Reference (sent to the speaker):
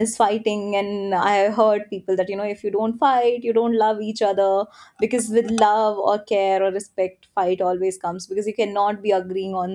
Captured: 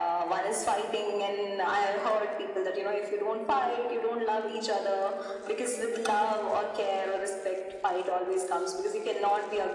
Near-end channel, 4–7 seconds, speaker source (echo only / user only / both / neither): echo only